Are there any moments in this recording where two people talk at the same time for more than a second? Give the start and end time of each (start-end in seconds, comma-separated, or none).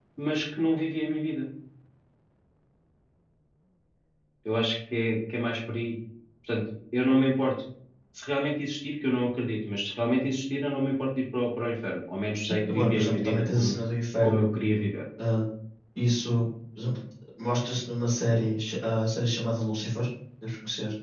12.4-13.8